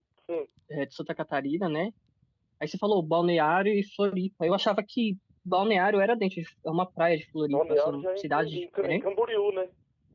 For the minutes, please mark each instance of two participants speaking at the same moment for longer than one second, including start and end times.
7.5-9.0

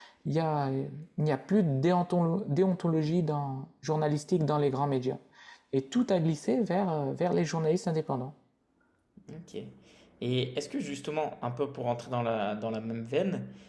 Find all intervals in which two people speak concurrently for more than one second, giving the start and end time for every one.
none

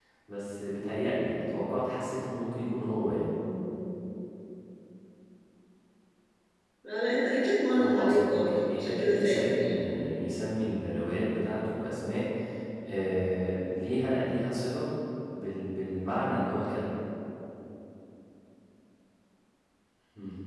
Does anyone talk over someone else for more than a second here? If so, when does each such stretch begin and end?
7.8-9.9

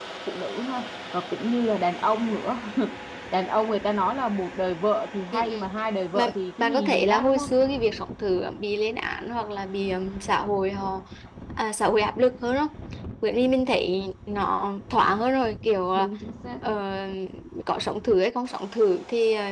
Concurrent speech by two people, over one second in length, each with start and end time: 6.1-7.5

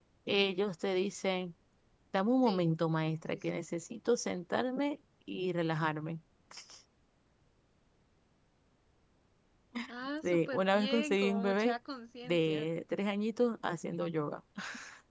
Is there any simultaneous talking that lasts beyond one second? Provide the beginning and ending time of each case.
10.2-11.8

